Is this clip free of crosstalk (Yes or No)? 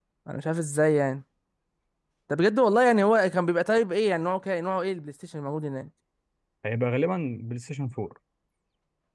Yes